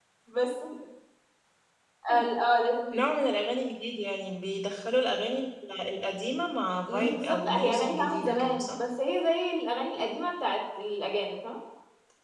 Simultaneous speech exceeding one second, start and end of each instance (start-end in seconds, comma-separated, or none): 6.9-8.8